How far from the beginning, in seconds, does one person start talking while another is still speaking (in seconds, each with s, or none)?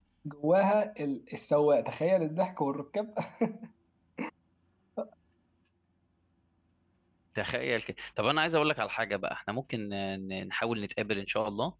none